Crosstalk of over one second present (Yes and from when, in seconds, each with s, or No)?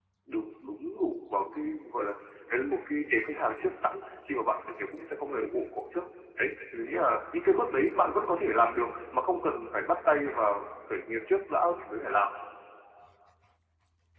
No